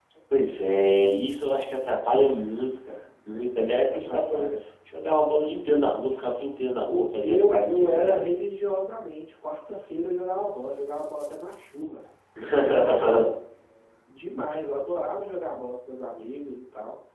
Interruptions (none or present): present